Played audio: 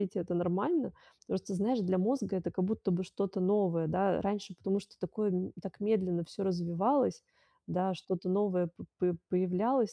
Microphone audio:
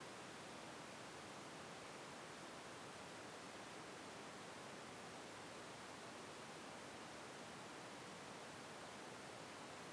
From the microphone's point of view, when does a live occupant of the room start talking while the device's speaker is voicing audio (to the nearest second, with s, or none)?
none